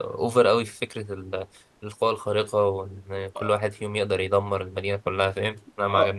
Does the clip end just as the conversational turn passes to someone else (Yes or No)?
Yes